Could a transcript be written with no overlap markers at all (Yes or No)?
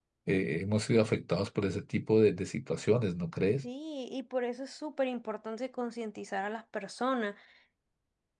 Yes